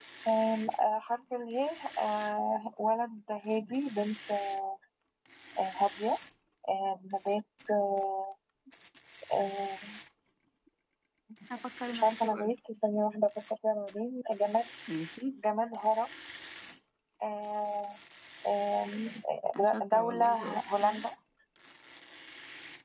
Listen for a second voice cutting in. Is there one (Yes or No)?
Yes